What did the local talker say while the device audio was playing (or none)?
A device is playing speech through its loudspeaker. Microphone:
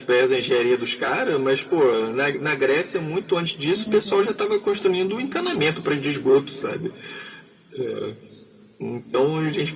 Uhum,